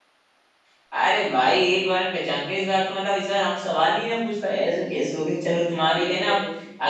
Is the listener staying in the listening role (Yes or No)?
Yes